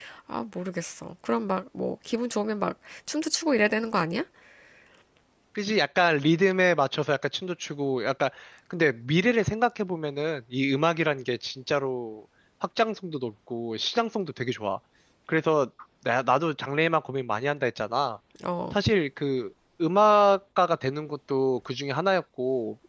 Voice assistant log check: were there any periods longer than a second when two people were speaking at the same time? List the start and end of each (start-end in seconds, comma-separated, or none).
none